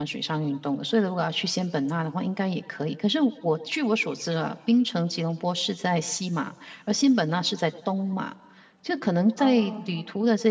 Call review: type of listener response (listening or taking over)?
listening